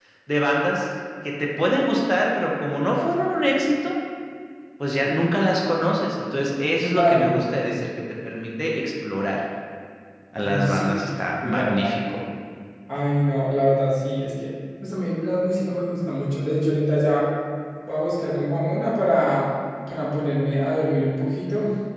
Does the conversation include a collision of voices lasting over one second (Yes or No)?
No